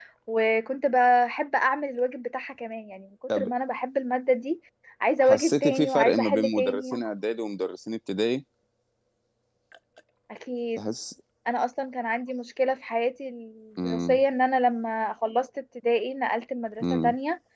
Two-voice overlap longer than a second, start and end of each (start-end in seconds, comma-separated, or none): 5.2-6.9